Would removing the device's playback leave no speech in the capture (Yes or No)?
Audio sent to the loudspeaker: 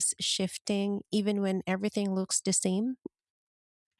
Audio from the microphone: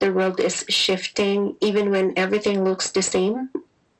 Yes